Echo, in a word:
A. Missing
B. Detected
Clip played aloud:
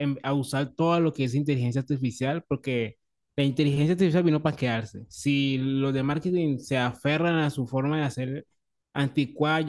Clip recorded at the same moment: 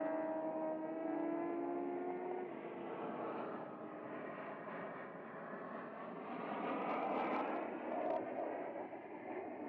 A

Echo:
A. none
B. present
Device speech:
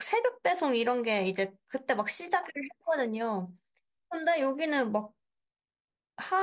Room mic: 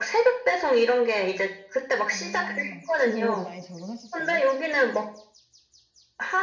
B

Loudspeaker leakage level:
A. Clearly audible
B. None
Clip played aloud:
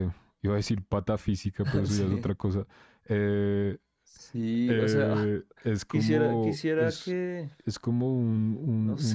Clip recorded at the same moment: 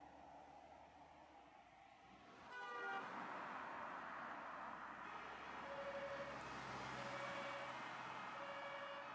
B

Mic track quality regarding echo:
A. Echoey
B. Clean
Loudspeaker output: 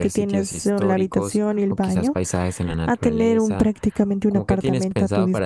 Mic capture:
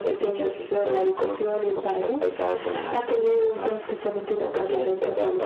A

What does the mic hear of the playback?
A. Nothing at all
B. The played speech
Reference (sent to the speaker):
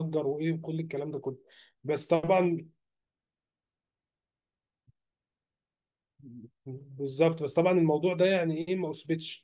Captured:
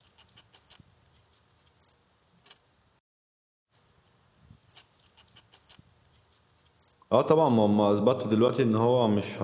A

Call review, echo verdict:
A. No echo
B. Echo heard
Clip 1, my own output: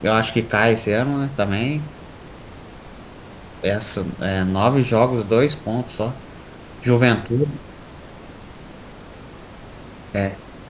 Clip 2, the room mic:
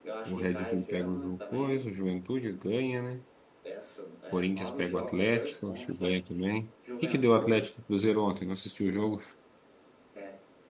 B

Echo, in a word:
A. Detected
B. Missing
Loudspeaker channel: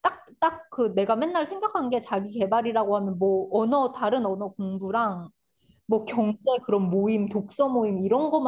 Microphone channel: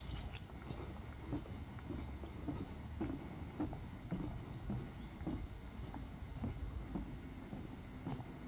B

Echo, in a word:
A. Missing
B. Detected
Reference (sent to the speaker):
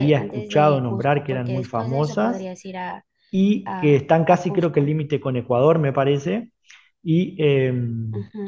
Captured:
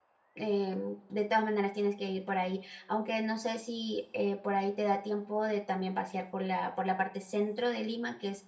A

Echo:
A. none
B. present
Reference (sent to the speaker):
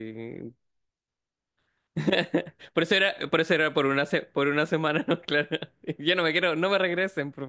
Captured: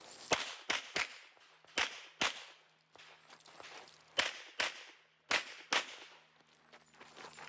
A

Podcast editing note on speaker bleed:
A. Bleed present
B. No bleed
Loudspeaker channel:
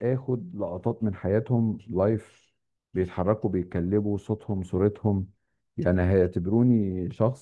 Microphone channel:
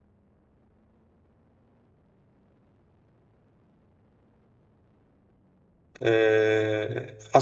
B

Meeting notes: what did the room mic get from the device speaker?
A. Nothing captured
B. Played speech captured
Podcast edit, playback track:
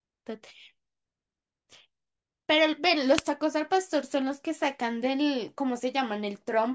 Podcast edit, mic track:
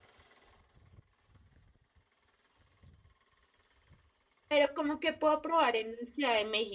A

